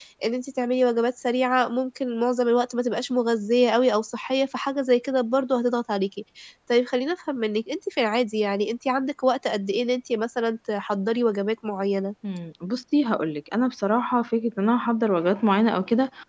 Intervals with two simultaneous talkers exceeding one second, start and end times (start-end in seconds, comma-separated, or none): none